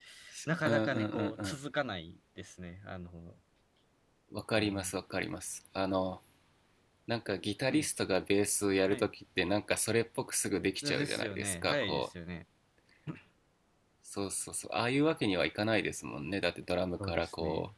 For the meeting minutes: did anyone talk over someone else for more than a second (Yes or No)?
Yes